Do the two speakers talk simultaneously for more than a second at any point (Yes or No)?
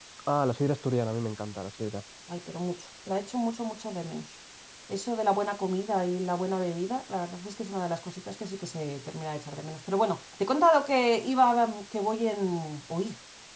No